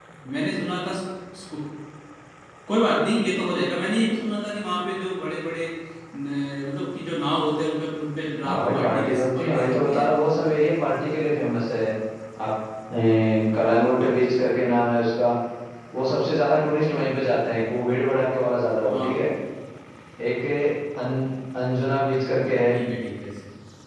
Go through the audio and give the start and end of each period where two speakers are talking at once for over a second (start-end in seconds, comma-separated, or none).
8.5-10.1